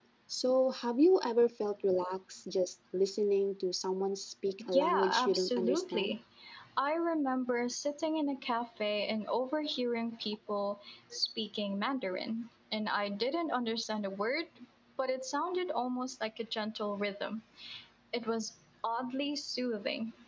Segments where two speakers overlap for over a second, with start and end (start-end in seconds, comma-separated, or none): 4.7-6.2